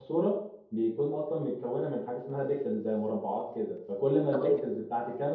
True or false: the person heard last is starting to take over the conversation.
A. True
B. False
B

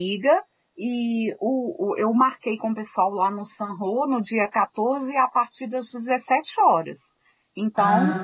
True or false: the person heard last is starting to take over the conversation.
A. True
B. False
B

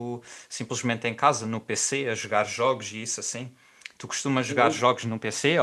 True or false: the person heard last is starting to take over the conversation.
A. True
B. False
B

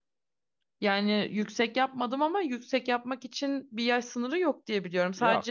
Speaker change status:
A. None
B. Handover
A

